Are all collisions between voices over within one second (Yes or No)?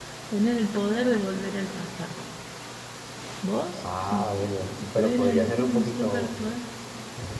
No